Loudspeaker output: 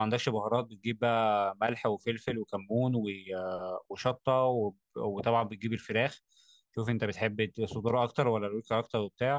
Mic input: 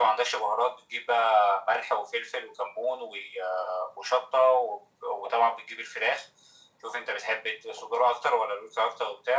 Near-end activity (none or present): none